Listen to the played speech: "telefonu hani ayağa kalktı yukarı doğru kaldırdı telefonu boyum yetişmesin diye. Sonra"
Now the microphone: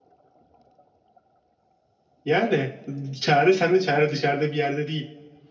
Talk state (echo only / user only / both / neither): user only